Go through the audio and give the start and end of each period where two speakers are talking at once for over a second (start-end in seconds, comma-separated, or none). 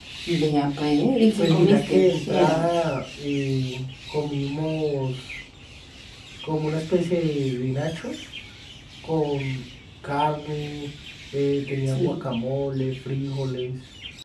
1.4-2.6